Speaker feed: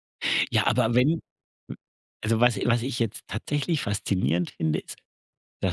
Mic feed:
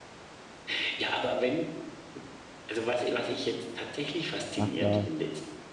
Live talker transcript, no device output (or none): macht da